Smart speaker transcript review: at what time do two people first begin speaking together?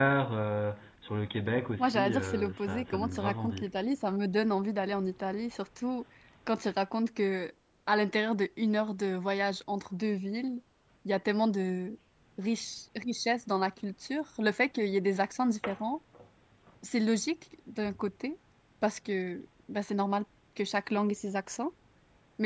1.8 s

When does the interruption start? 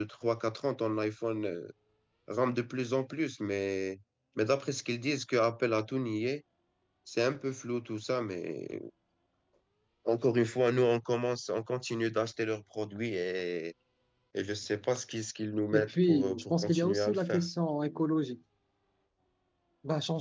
15.7 s

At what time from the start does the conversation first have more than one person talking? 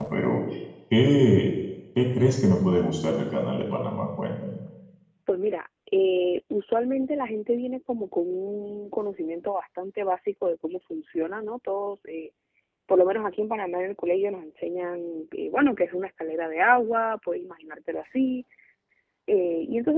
none

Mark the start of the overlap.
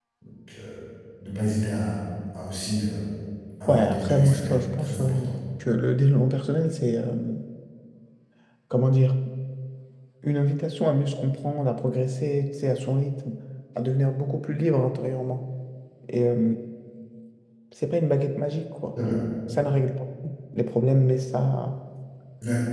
3.7 s

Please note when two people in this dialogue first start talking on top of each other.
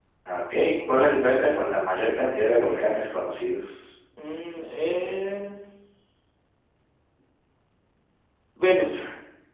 none

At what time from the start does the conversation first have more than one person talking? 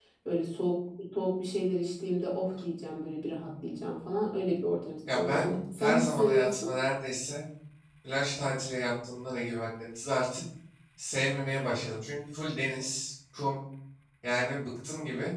5.1 s

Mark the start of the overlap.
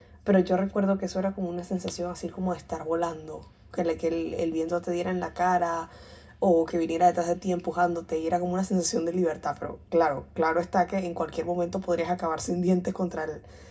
none

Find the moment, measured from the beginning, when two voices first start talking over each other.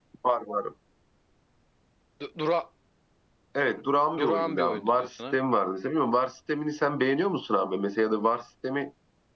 4.2 s

